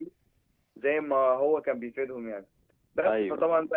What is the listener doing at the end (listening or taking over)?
listening